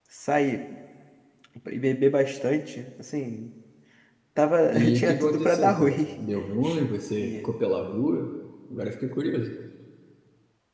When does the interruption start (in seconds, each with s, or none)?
4.7 s